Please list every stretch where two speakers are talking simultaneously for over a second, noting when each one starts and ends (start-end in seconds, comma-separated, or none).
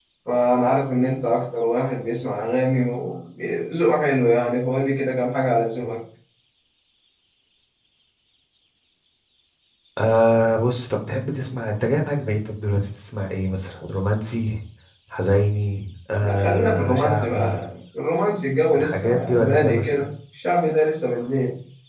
16.2-17.6, 18.8-20.1